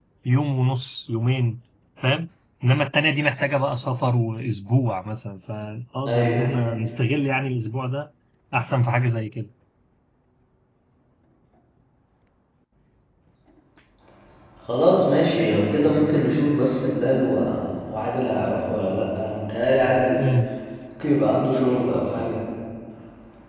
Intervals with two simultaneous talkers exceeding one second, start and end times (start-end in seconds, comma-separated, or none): none